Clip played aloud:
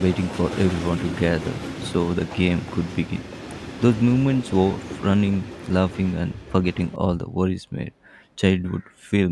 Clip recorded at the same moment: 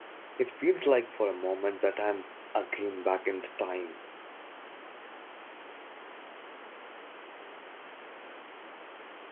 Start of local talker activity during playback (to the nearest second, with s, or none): 0 s